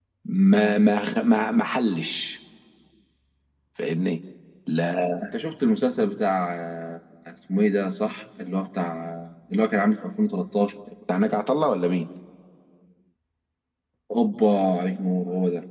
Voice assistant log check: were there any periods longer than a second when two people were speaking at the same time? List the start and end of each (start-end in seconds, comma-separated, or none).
none